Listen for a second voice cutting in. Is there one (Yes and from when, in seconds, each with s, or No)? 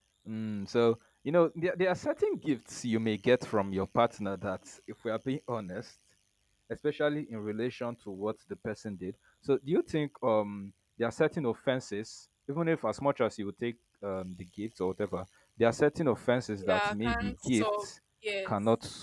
Yes, from 16.6 s